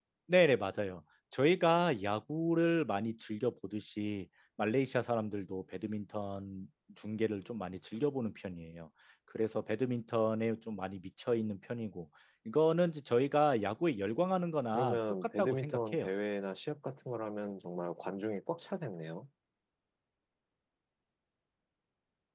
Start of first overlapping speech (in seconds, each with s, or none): 14.7 s